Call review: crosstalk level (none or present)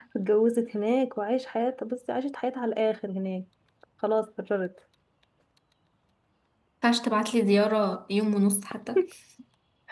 none